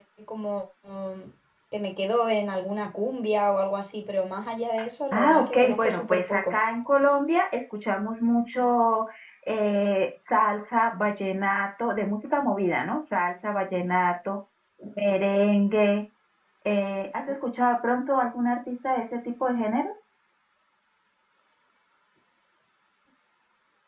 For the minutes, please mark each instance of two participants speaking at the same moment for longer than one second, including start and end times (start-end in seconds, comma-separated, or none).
5.1-6.6